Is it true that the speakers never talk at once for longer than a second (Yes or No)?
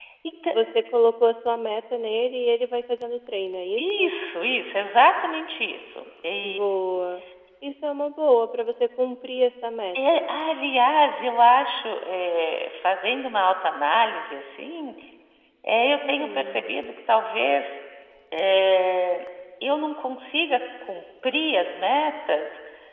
Yes